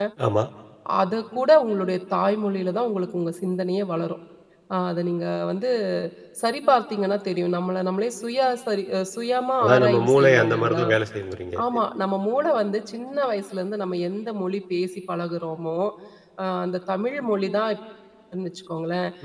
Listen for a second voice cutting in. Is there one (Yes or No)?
Yes